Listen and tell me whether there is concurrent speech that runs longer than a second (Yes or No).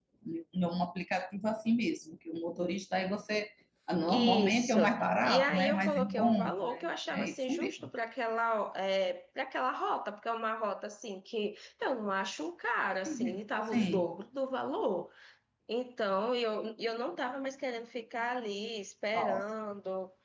Yes